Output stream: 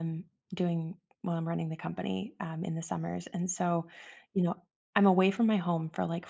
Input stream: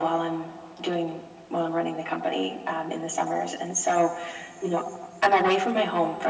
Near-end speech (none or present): none